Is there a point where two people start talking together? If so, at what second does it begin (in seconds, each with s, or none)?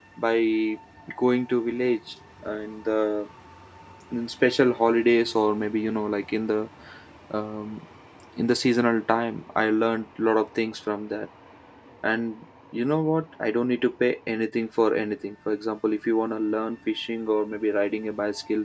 none